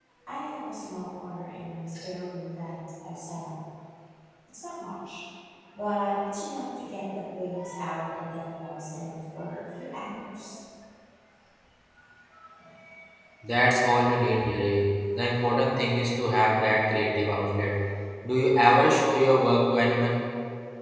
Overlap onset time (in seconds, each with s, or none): none